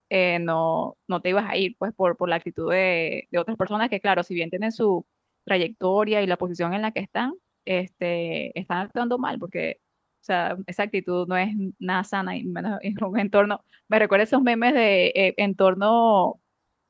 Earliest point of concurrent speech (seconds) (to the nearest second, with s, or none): none